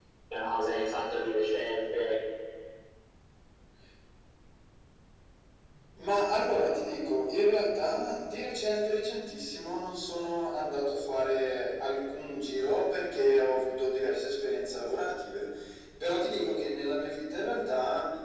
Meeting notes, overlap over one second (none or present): none